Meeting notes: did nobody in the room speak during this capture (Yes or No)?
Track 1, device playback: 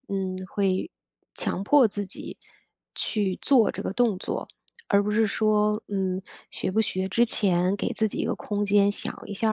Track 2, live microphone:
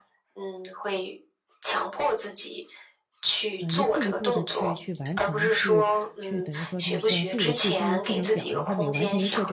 No